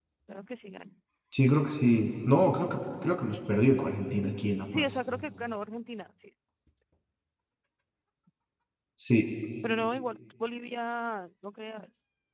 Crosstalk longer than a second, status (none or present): none